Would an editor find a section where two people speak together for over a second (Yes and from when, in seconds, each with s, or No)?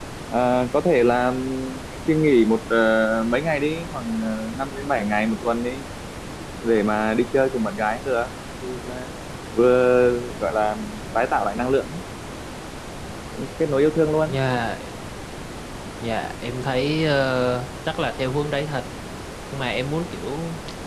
No